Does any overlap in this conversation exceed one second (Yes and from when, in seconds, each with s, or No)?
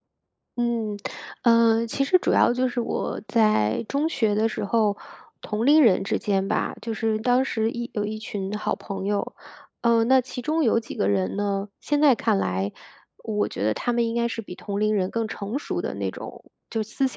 No